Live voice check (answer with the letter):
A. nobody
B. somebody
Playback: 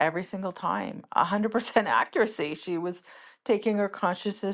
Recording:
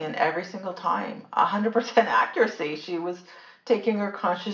A